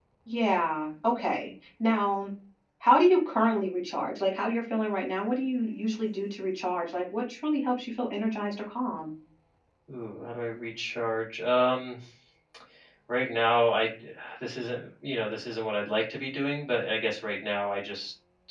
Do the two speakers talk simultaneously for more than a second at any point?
No

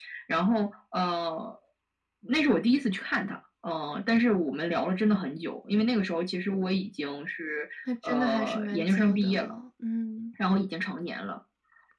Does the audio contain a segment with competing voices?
Yes, from 8.0 s

